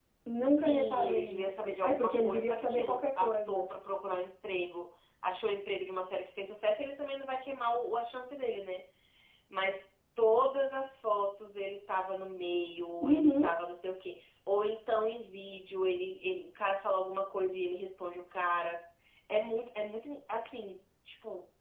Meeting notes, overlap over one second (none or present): present